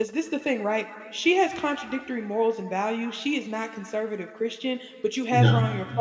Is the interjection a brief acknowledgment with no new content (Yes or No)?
Yes